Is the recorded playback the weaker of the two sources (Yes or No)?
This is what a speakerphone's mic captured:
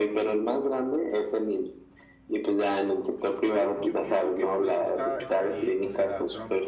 No